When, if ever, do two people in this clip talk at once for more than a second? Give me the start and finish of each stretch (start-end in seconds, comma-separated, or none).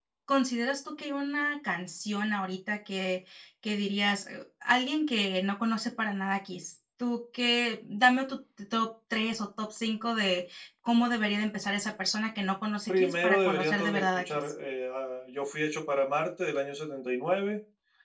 12.9-14.2